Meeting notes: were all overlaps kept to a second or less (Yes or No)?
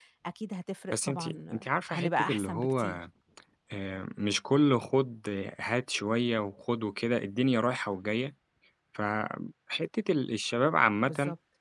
No